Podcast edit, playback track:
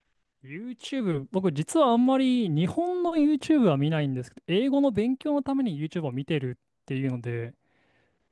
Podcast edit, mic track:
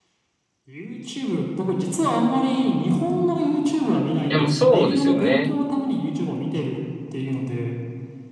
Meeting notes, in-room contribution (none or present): present